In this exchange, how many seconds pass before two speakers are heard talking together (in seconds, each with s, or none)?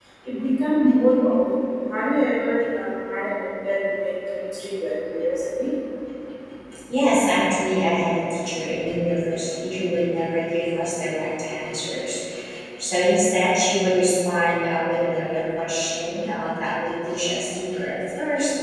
none